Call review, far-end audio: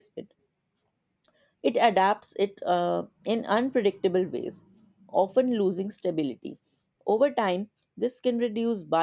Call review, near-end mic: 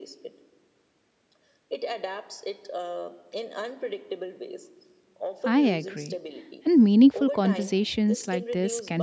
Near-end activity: present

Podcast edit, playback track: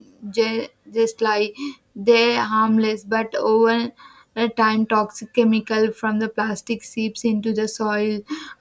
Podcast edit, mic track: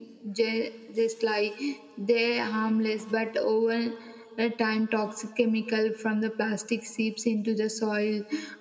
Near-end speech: none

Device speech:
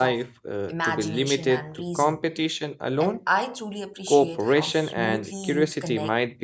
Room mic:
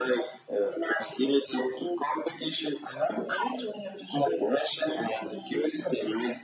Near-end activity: none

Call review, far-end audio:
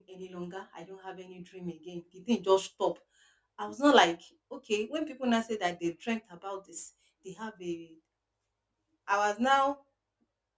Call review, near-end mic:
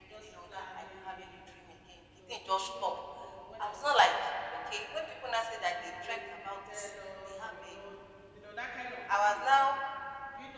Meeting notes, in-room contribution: present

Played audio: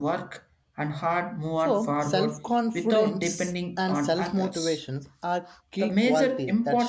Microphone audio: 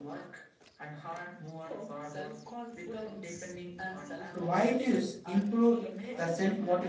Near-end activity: present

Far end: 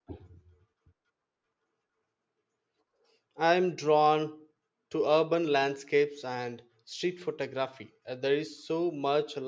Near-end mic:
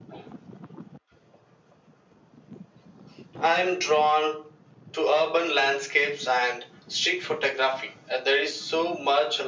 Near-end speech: none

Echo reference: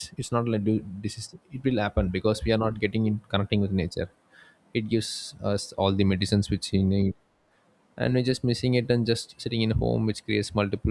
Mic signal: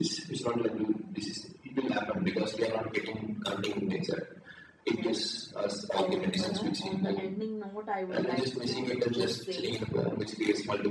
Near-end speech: present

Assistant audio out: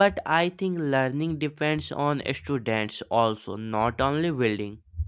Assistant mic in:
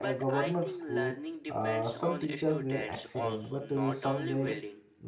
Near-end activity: present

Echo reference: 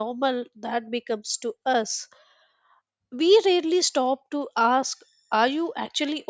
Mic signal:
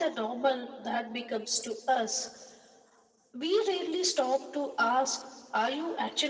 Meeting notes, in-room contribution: none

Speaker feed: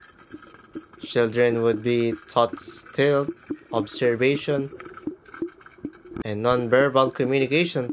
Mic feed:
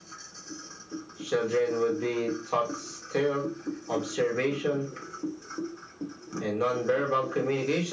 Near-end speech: none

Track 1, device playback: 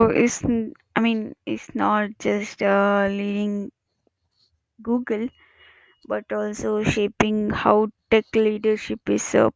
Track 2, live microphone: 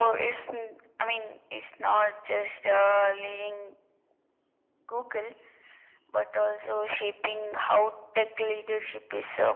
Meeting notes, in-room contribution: none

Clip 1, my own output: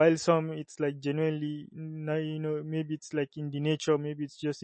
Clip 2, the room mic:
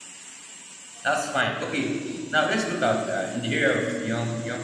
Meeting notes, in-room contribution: present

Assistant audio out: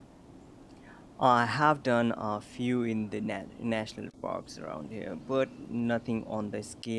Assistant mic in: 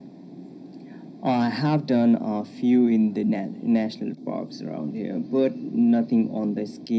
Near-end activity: none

